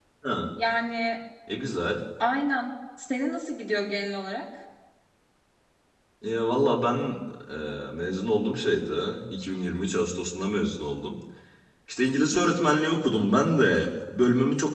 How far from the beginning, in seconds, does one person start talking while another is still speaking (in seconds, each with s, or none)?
none